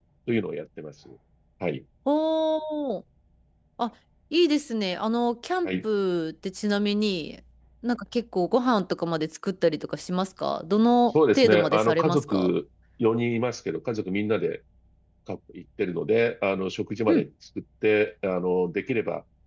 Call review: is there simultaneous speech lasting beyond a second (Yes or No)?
Yes